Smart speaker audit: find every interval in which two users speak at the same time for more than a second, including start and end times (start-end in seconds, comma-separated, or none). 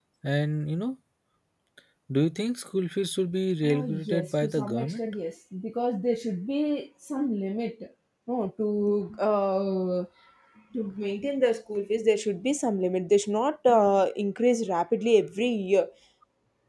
3.6-5.0